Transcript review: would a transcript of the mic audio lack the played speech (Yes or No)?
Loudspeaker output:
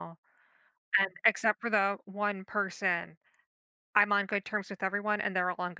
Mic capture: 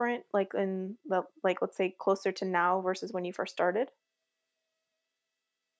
Yes